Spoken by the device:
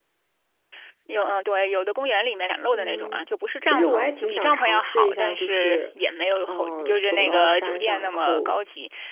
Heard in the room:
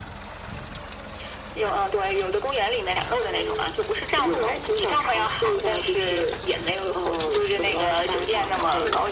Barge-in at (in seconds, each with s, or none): none